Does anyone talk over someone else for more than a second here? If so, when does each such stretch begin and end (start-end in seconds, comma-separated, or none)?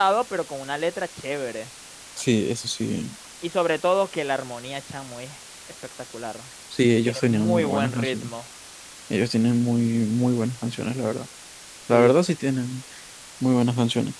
7.0-8.3